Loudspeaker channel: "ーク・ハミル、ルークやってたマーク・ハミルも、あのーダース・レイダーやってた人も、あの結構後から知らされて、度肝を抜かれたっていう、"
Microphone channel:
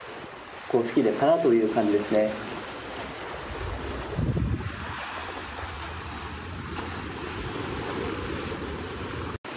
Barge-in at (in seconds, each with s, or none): 0.7 s